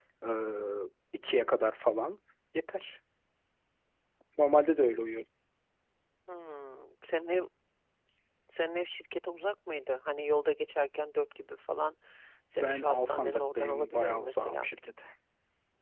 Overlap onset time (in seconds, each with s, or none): 12.6 s